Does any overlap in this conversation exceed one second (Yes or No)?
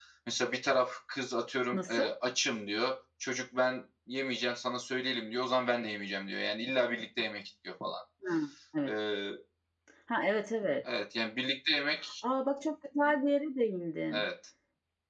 No